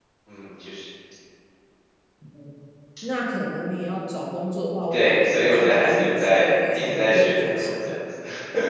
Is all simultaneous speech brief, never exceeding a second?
No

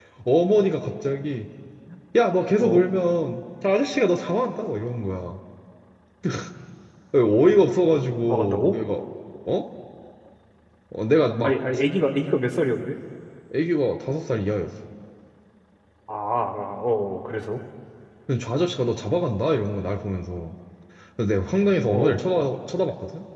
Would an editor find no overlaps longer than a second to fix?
Yes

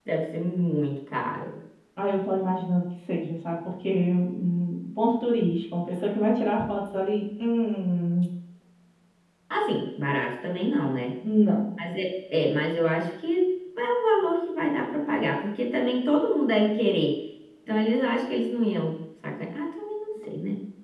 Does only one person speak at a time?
Yes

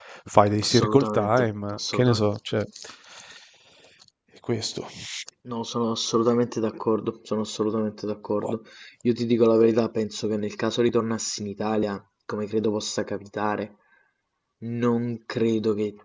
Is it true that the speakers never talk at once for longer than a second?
No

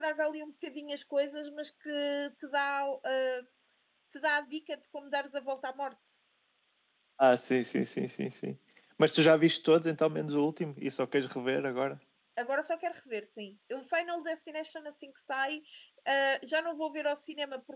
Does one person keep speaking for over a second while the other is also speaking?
No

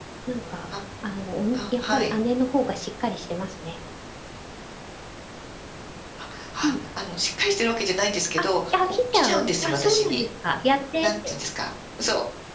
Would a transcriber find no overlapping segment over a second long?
No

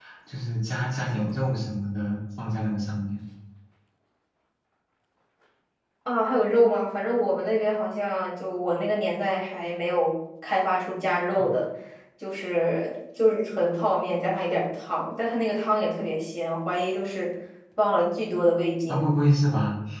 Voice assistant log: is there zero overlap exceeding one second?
Yes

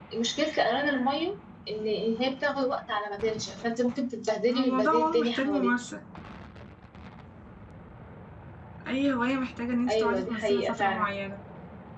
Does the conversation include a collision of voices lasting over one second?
Yes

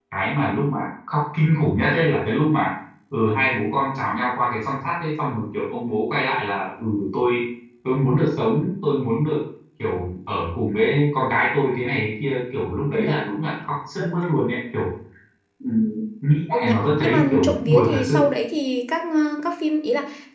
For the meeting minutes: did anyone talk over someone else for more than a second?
Yes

